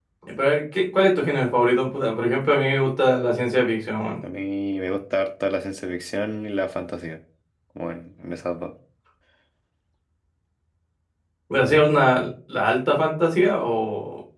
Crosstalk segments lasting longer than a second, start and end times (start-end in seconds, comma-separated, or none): none